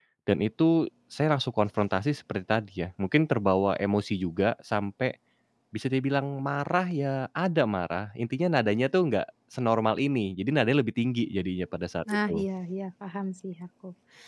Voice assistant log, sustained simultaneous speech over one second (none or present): none